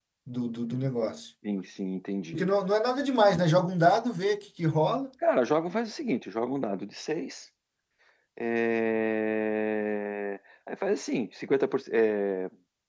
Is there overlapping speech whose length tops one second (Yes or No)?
No